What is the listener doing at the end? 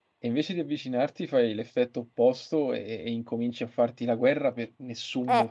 taking over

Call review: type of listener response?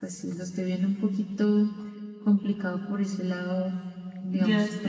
taking over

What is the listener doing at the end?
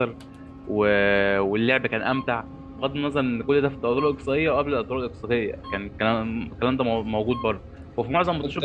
listening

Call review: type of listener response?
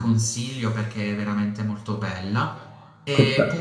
listening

